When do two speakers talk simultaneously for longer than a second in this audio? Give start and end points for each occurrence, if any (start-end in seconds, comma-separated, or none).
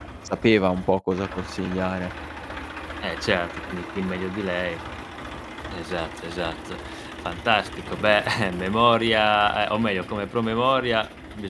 none